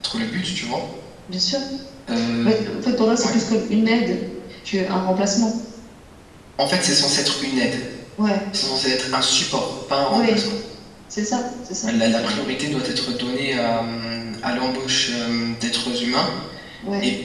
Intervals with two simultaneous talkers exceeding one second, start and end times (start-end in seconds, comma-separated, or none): none